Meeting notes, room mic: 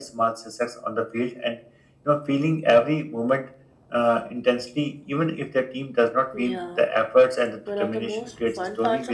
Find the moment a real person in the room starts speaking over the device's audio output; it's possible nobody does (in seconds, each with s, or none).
6.3 s